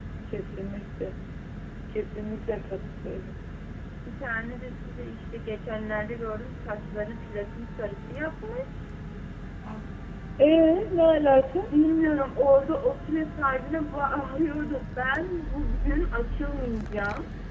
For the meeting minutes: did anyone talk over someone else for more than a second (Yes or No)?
No